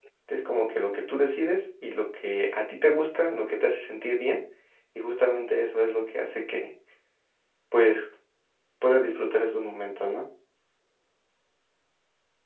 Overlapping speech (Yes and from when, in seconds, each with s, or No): No